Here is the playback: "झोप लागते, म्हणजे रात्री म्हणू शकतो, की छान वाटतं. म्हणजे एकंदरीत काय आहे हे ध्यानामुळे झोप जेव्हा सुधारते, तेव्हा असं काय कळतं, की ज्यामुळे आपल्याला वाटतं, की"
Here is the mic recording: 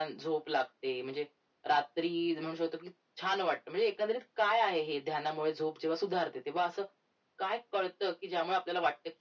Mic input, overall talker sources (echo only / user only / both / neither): echo only